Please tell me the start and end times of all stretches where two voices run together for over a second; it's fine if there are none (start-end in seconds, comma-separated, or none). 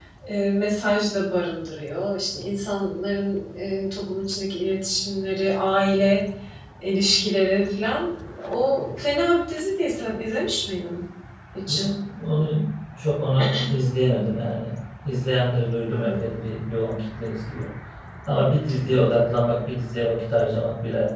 none